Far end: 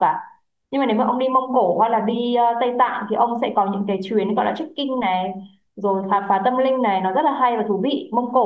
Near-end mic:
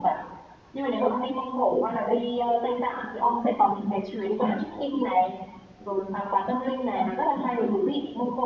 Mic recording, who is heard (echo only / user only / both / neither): echo only